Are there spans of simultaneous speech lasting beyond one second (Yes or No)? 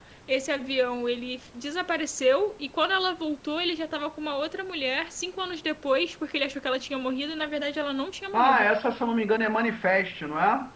No